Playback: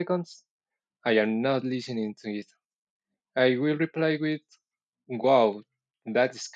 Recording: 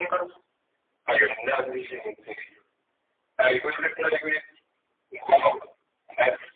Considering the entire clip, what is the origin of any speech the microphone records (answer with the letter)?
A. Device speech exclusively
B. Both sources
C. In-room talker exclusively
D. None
A